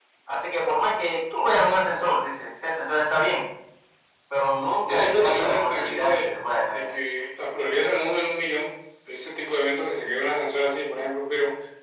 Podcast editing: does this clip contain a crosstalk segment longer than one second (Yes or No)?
Yes